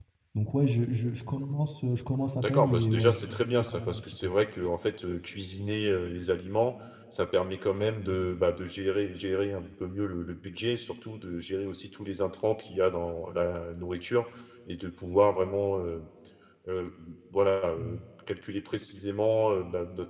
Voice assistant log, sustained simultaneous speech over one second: present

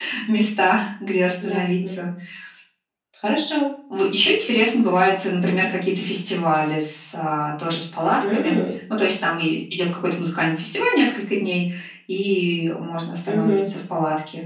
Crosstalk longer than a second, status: none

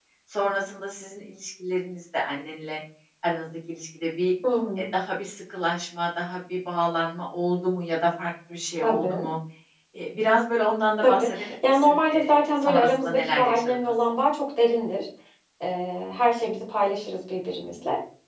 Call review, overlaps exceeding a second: present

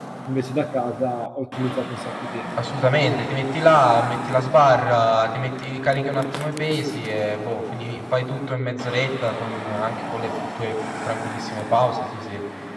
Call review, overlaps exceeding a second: none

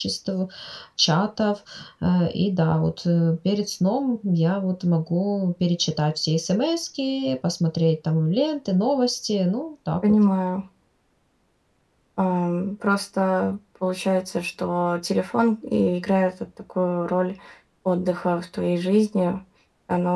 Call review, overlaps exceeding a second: none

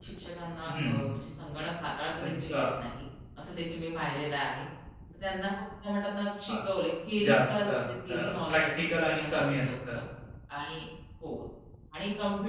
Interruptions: present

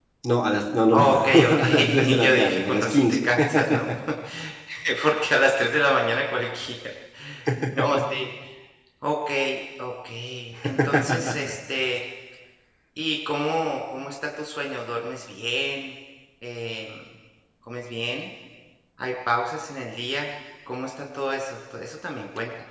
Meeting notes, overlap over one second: present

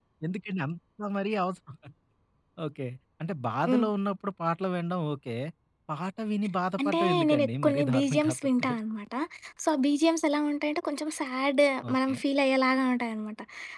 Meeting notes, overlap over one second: present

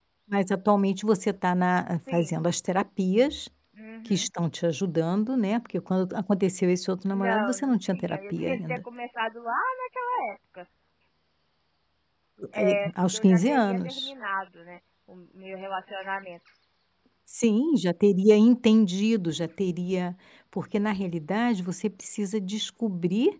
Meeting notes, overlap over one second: present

